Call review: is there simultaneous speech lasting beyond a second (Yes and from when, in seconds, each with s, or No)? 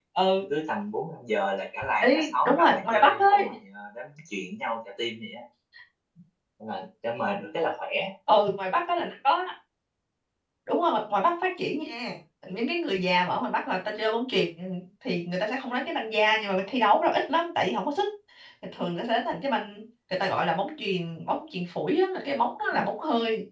Yes, from 2.0 s